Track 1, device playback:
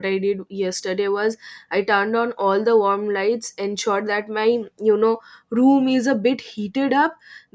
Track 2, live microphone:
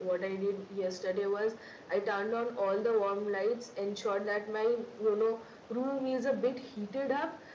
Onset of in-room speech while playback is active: none

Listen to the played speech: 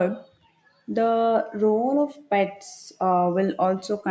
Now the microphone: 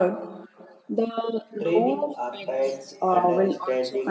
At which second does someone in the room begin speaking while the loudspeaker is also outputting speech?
1.6 s

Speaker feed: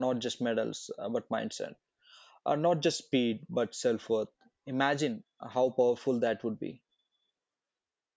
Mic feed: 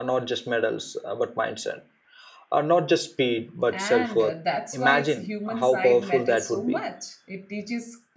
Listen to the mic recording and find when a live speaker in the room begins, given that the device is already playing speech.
3.7 s

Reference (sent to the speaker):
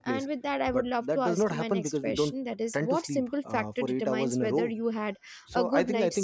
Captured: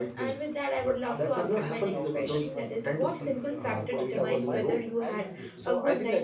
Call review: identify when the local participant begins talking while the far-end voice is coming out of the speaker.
1.1 s

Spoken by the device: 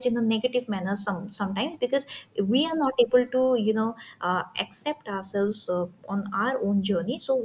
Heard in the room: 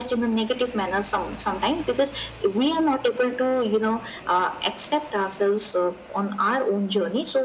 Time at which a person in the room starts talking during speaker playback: none

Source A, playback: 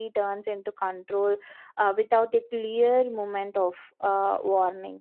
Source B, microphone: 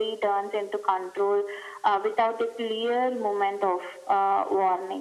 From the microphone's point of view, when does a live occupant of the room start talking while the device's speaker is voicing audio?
none

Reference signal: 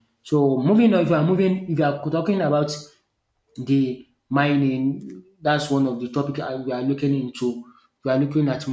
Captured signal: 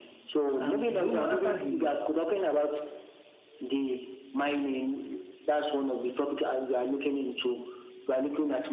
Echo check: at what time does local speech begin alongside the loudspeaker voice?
0.5 s

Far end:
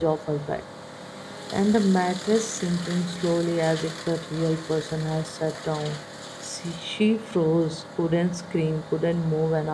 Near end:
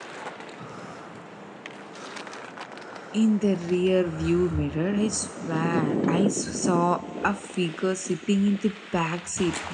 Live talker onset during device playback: 3.1 s

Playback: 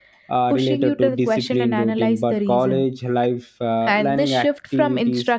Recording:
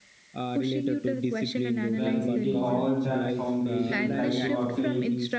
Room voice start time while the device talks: 1.9 s

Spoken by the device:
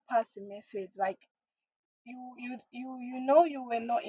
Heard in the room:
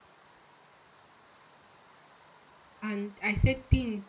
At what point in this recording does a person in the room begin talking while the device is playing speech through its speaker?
2.8 s

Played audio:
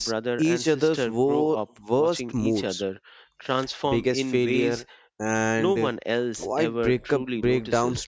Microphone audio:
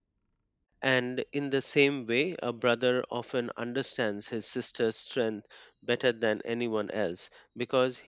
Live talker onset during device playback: 0.8 s

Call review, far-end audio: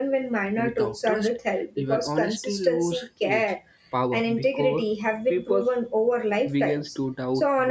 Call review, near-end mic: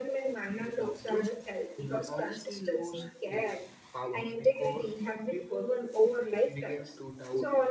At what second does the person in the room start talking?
none

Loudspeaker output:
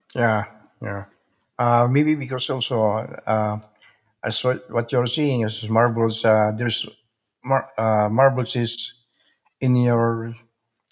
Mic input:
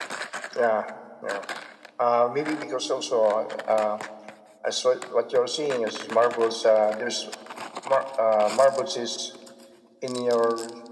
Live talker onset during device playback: none

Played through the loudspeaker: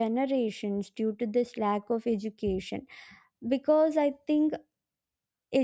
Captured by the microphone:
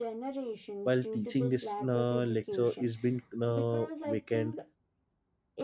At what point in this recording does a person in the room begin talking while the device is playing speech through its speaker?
0.8 s

